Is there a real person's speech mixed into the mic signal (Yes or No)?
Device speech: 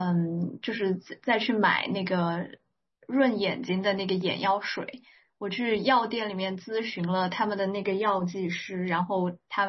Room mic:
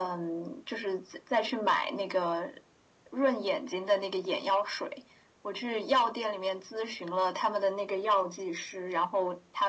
No